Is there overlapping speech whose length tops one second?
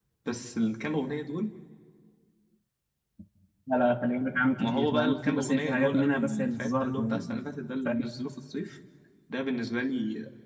Yes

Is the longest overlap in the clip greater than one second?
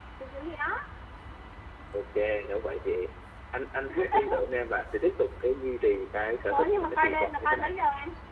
Yes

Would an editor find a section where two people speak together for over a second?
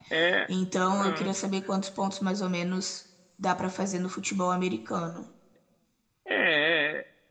No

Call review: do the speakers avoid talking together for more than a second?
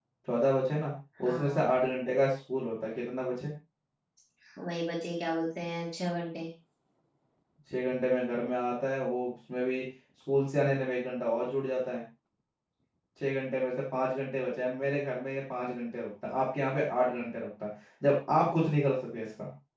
Yes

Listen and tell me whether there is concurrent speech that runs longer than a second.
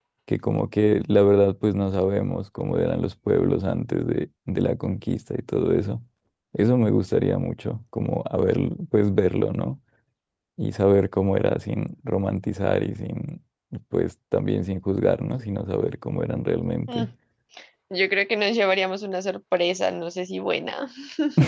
No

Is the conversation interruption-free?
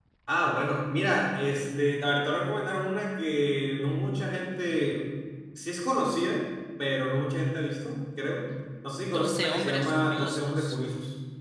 No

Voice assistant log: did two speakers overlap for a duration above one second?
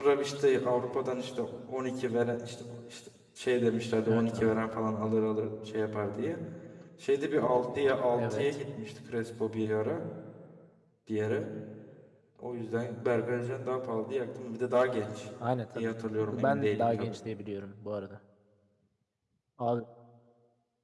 Yes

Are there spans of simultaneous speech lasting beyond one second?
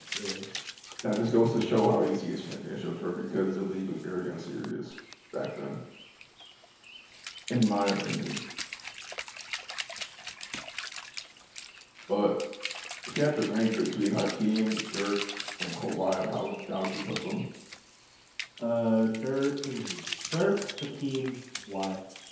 No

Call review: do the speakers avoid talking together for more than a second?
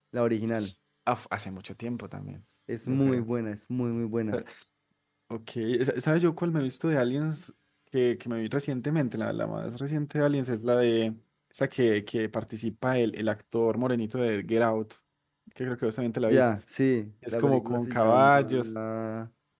No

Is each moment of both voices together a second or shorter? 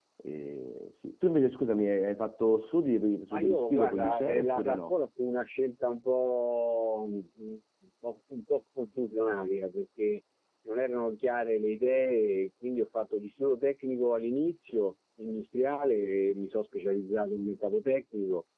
No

